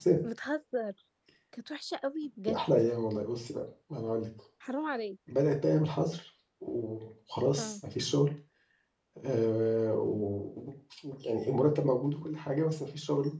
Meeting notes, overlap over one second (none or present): none